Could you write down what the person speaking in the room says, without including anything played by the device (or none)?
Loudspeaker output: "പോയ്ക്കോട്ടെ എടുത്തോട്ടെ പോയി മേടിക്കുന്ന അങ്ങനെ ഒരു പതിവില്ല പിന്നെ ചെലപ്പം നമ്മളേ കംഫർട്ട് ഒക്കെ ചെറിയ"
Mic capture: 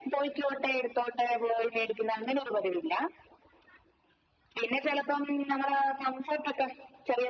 none